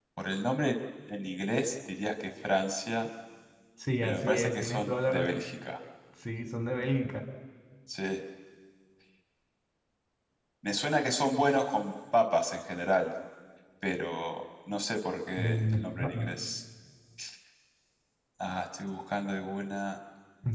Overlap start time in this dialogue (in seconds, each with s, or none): 4.0 s